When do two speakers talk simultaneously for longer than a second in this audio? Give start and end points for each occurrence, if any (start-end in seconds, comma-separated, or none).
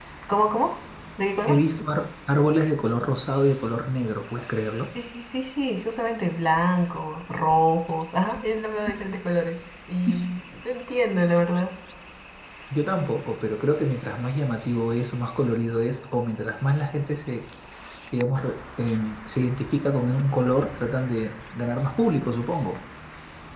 none